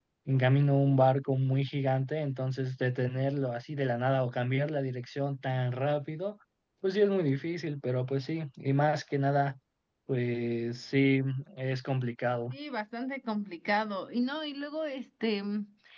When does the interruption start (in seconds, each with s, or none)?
none